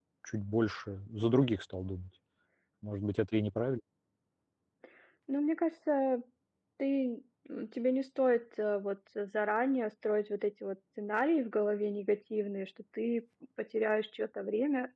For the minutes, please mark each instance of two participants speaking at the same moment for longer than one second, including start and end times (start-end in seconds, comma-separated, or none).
none